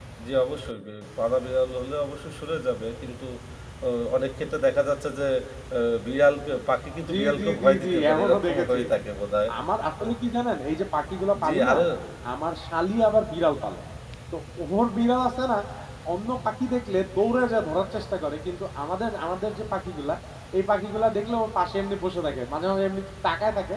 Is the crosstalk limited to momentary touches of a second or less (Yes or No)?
No